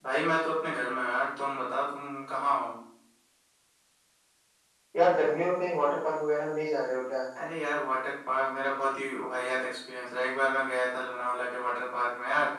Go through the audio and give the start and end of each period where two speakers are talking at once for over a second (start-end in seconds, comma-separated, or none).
none